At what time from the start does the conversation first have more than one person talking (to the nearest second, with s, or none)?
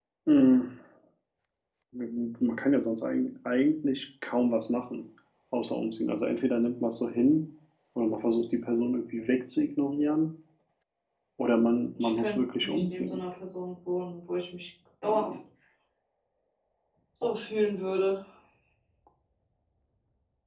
12 s